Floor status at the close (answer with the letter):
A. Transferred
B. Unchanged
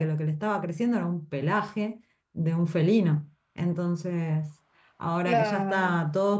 B